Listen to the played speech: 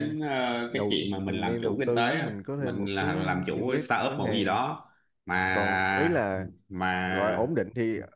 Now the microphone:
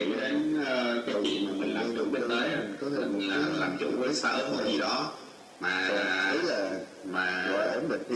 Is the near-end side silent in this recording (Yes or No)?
Yes